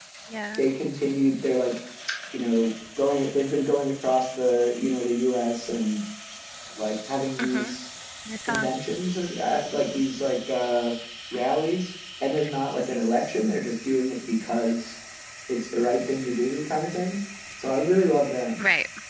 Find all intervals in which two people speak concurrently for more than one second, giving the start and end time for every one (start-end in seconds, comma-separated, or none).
none